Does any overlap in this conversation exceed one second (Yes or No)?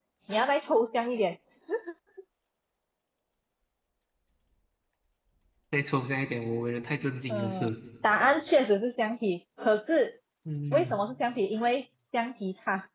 No